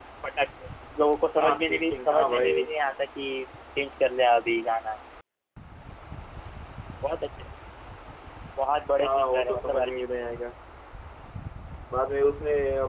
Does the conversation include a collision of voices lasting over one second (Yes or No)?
Yes